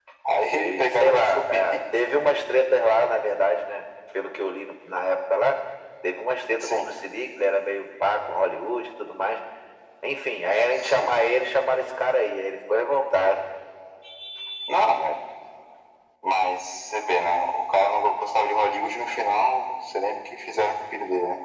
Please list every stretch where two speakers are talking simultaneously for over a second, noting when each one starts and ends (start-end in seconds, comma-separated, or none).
0.6-1.8